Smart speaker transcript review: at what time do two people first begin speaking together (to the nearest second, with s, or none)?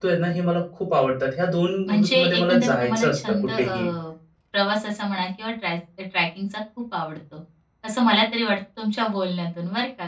2 s